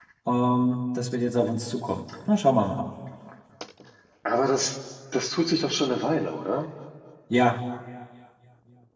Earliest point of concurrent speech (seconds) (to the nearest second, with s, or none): none